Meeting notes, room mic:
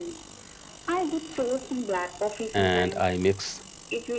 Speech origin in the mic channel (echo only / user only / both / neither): both